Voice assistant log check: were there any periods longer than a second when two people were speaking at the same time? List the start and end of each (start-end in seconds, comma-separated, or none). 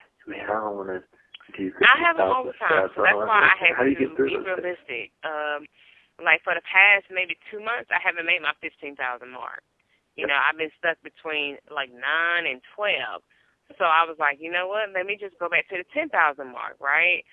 1.8-4.6